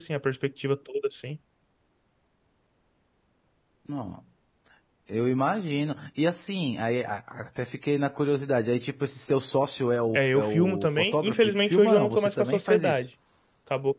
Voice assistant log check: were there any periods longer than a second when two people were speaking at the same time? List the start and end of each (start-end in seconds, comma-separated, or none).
10.1-13.0